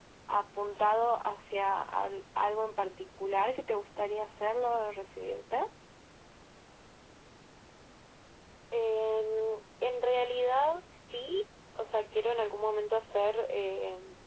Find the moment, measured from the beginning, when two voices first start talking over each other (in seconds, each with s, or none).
none